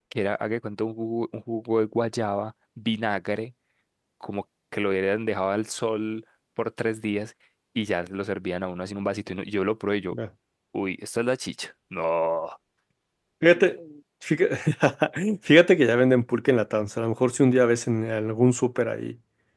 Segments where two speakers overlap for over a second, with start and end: none

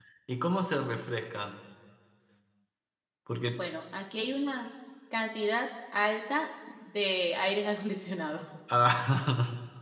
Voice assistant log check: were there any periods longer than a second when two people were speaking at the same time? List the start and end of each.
none

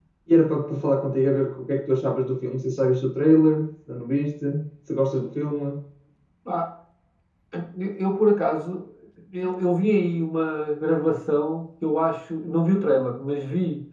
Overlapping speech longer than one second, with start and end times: none

